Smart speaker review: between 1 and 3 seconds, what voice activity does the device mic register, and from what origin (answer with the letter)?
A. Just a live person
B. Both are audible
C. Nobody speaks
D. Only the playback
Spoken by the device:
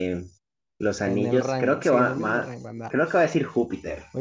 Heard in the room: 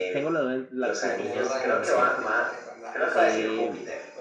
B